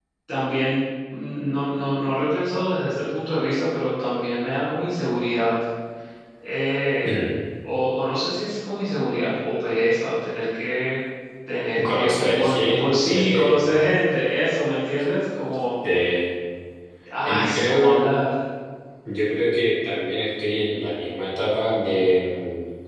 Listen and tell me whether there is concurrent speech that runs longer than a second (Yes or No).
Yes